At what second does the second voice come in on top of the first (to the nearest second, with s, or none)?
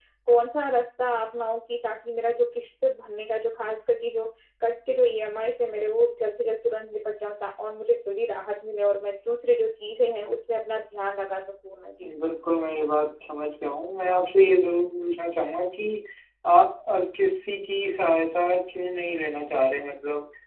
none